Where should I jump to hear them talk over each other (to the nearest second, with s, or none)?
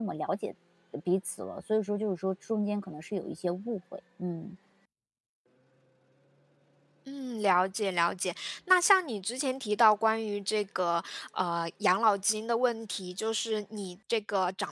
none